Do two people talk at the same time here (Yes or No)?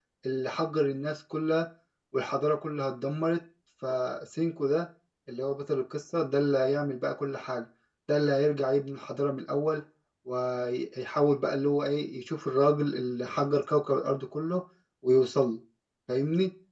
No